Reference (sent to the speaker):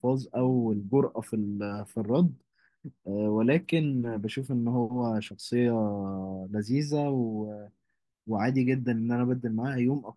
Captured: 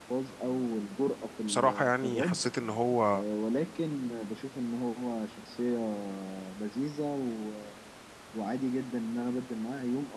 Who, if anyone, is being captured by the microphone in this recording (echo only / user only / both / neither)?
both